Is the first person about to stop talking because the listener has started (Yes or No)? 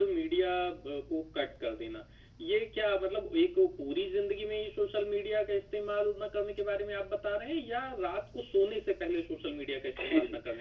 Yes